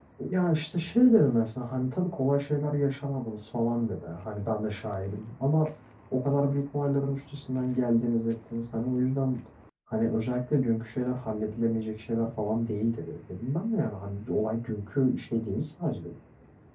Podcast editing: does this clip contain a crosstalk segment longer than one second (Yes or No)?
No